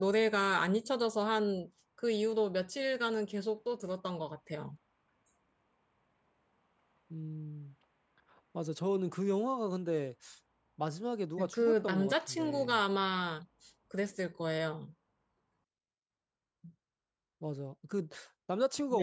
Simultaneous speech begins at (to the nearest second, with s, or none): 11 s